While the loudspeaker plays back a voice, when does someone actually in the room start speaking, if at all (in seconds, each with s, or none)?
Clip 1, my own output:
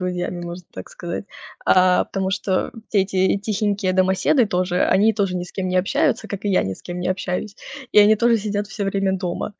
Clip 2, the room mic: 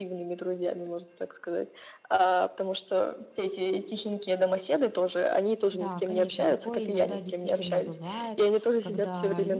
5.7 s